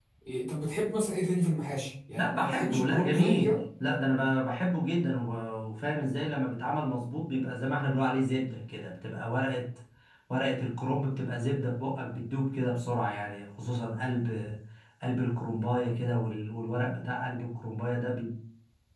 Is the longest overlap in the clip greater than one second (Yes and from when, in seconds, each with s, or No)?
Yes, from 2.2 s